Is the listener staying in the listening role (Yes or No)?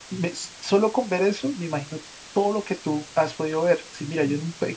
Yes